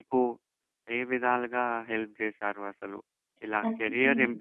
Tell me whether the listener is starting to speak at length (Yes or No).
No